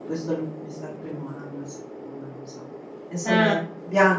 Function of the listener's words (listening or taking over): listening